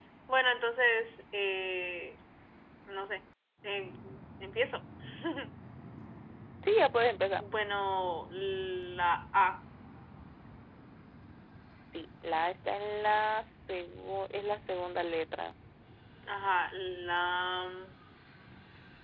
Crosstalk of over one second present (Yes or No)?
No